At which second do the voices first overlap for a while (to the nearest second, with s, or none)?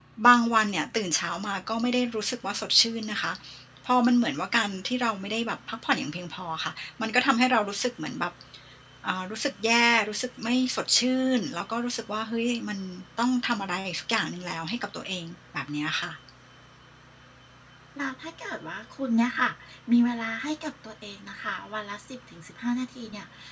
none